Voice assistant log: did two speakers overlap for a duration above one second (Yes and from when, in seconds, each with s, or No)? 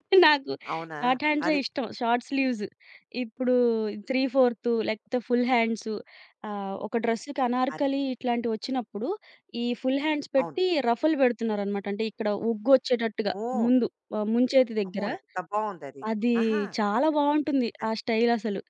No